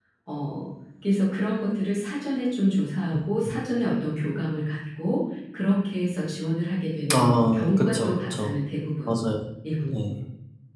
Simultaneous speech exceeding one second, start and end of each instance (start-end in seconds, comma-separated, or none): 7.1-8.5